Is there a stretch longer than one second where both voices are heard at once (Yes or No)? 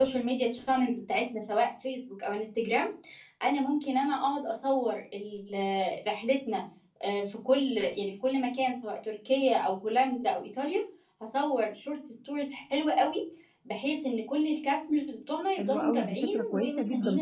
Yes